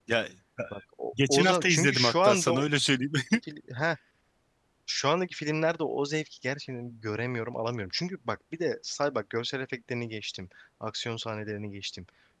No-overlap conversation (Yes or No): No